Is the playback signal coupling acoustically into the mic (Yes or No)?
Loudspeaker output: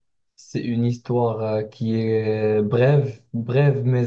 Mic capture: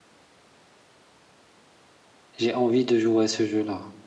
No